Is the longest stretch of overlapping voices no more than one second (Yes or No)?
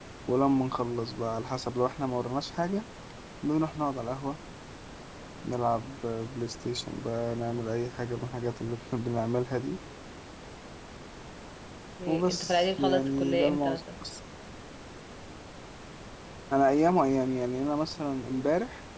No